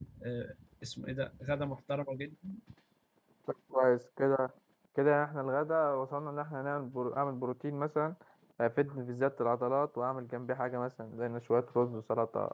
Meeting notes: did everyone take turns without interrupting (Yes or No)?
Yes